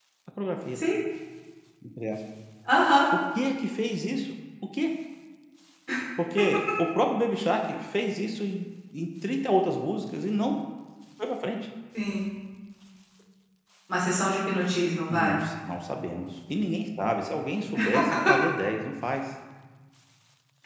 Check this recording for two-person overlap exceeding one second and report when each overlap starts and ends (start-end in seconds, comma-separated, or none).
none